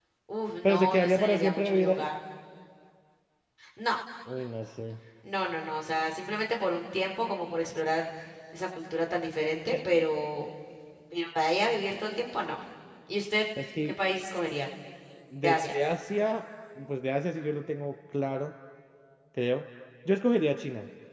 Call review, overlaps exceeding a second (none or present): present